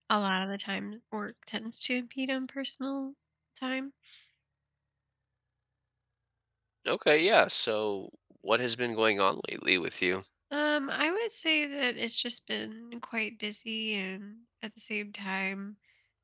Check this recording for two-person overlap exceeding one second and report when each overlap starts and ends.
none

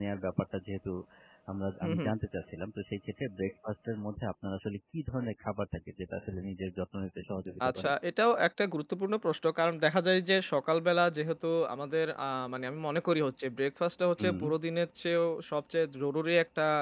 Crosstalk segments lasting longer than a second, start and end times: none

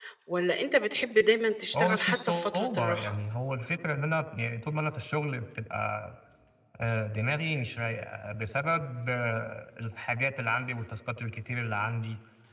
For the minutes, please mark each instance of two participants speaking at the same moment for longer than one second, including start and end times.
1.7-3.1

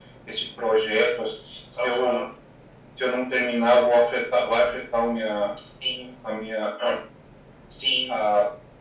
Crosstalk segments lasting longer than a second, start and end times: none

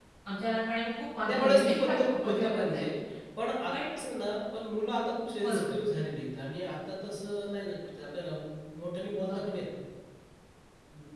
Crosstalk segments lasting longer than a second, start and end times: 1.3-2.8

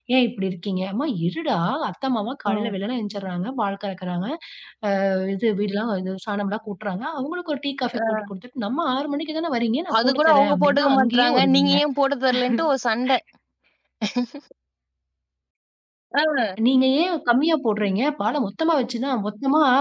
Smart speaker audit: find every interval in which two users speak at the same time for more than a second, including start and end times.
10.0-11.8

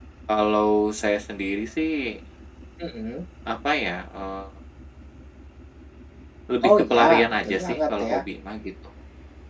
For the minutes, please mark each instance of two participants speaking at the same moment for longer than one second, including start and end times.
6.7-8.2

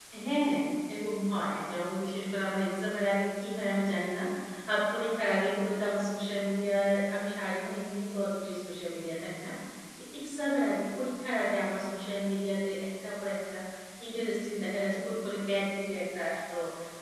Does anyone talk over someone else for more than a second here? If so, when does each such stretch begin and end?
none

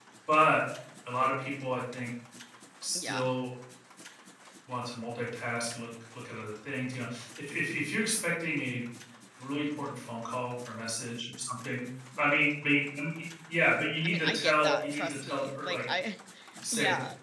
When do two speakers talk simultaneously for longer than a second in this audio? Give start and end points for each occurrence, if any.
14.0-15.8

